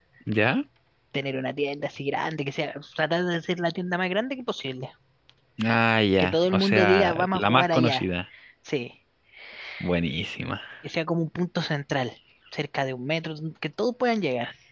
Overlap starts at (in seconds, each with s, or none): 6.2 s